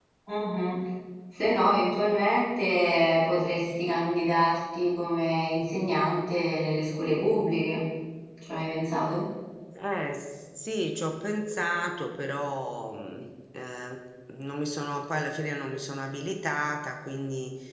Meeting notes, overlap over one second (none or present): none